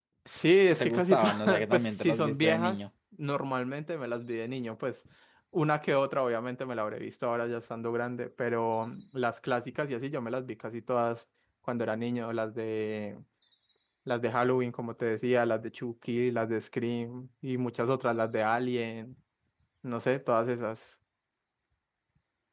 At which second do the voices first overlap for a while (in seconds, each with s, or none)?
0.8 s